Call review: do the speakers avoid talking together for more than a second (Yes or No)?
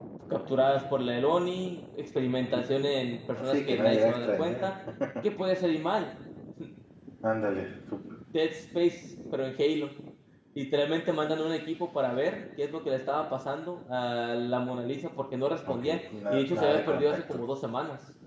No